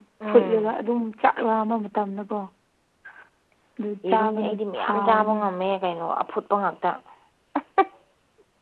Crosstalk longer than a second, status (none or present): present